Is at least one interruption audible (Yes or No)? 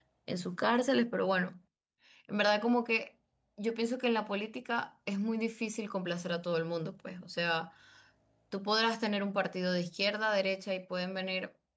No